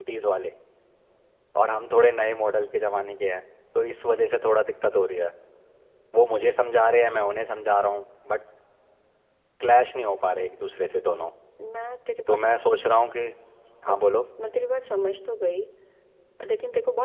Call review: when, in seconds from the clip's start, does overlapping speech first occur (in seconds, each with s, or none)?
none